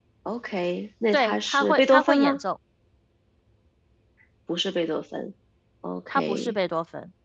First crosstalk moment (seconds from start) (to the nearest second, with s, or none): 1 s